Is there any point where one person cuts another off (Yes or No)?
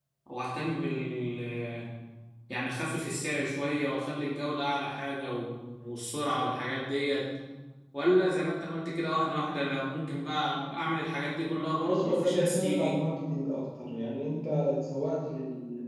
Yes